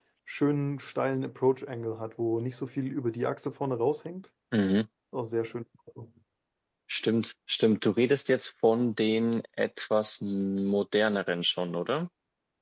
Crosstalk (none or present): none